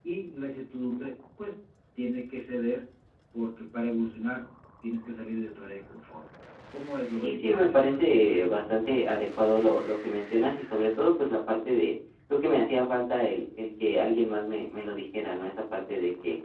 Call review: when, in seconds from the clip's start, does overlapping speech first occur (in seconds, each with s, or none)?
7.2 s